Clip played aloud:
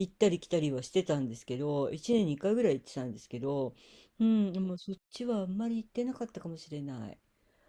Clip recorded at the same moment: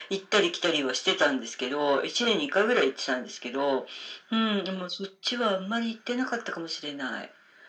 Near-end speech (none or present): none